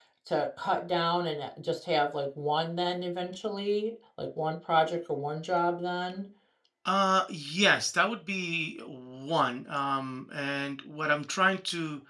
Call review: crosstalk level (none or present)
none